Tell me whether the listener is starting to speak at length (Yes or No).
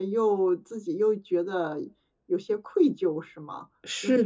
Yes